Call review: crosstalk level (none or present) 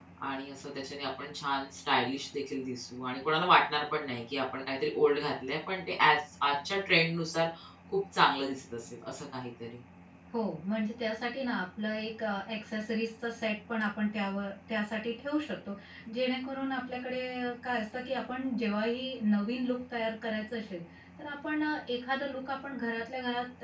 none